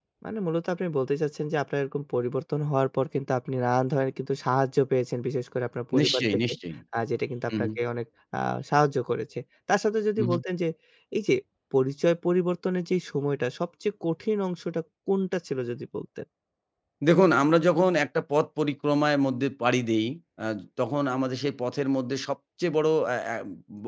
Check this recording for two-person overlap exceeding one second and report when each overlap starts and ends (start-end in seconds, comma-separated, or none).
none